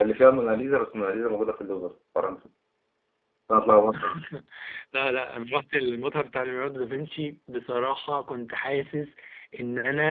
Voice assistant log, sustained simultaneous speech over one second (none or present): none